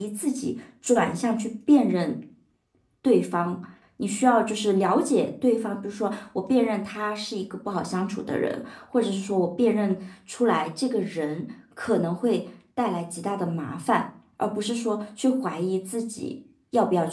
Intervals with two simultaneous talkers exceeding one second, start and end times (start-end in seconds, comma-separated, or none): none